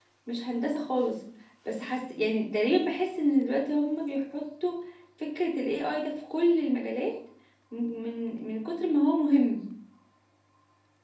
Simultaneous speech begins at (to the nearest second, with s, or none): none